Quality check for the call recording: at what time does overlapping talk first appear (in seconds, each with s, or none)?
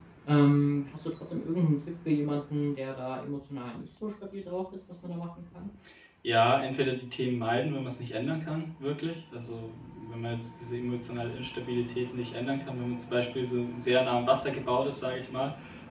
none